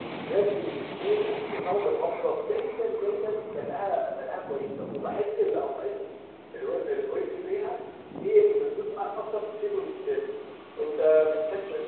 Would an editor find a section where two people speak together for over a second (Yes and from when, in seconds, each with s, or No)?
No